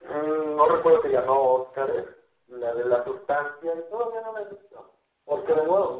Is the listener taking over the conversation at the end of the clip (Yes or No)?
No